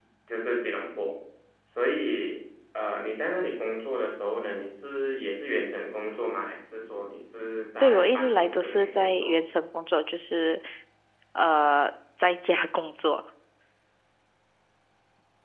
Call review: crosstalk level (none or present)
present